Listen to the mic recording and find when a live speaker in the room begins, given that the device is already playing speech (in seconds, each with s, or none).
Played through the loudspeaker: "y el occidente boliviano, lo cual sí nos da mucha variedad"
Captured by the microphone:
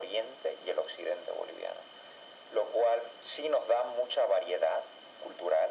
none